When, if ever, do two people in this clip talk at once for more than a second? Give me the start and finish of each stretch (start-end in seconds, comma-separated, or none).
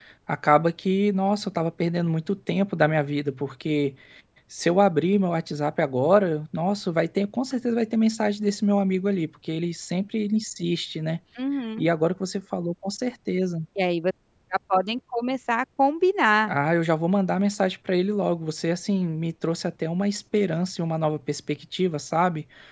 none